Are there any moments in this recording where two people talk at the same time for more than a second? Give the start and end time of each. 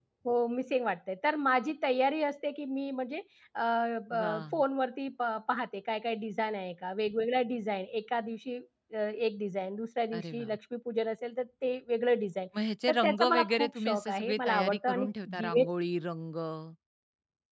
12.9-15.6

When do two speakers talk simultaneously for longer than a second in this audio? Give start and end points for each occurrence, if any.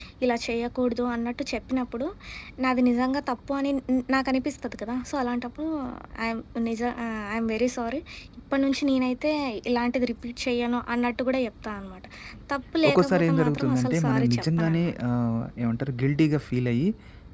12.9-15.0

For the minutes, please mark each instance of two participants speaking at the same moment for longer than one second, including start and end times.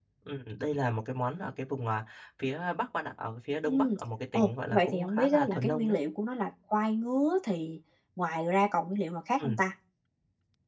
4.3-6.0

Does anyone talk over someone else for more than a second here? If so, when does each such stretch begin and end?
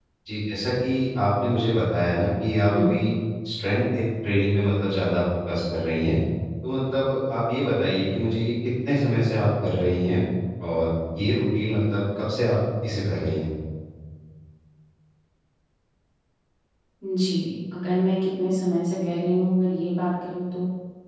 none

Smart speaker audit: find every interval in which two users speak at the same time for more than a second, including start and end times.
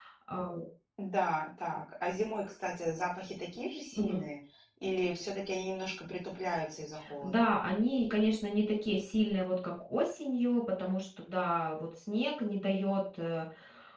none

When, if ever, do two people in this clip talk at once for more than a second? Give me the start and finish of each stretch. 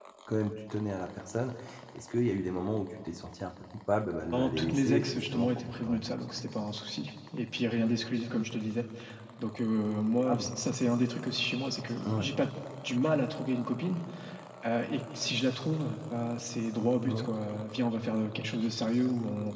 4.3-6.1

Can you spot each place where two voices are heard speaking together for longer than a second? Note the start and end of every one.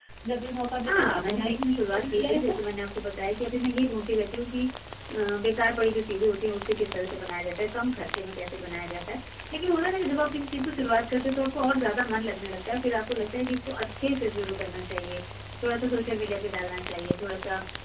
0.9-2.5

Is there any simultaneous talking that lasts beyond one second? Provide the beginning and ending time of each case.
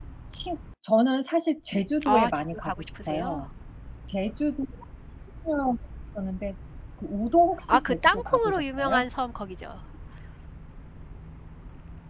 2.0-3.4, 7.7-9.0

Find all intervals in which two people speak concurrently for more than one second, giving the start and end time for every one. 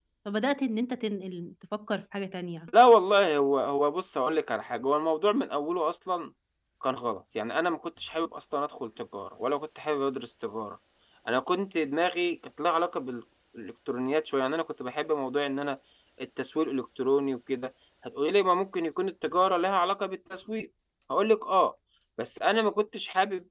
none

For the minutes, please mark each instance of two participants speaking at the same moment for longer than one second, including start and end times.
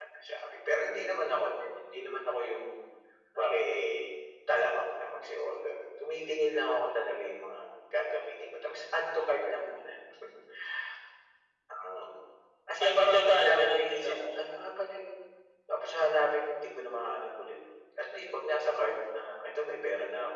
12.8-14.1

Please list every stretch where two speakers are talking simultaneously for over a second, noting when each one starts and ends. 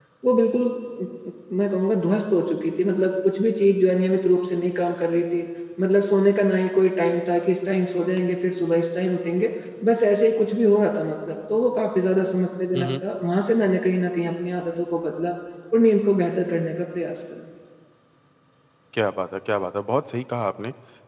none

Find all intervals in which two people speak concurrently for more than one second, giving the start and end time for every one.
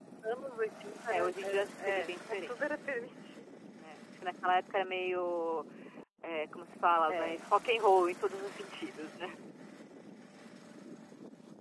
1.1-2.6

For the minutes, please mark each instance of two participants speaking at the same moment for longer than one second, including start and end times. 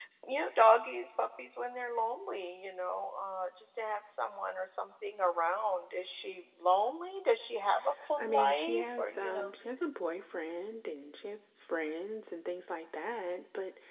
8.2-9.5

